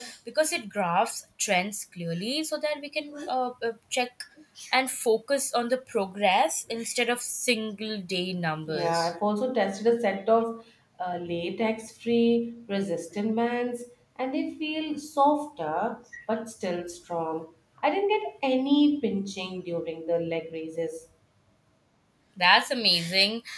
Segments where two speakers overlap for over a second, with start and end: none

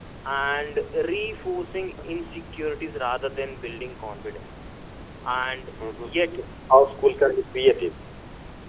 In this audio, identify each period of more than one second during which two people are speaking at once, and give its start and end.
none

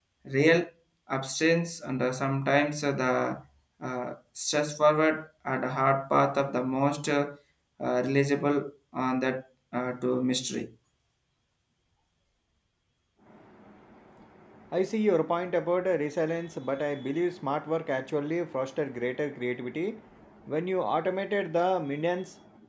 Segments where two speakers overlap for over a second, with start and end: none

